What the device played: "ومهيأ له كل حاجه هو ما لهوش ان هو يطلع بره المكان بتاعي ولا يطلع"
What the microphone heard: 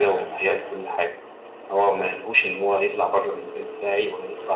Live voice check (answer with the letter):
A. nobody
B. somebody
A